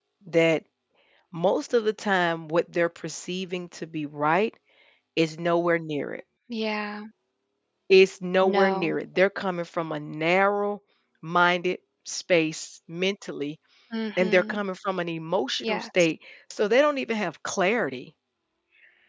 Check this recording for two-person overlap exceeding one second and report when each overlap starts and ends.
none

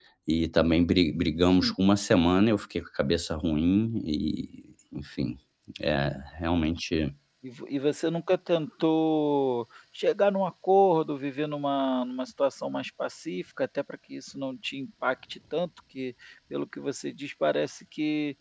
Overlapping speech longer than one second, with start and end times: none

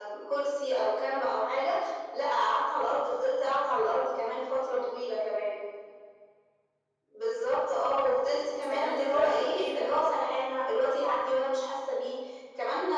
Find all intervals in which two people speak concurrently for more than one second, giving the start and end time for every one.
8.2-9.9

